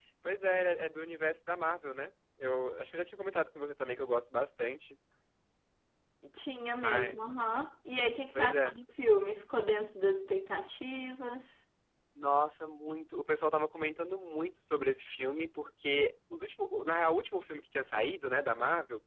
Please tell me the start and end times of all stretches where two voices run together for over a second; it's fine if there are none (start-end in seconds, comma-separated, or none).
none